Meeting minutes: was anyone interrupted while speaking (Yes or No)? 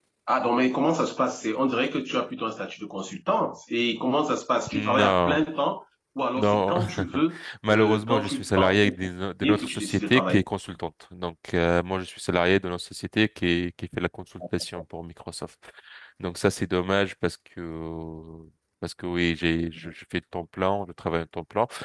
Yes